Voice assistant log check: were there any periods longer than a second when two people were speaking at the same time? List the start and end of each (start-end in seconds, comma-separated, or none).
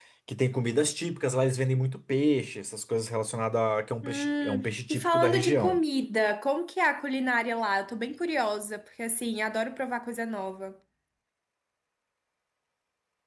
4.0-5.8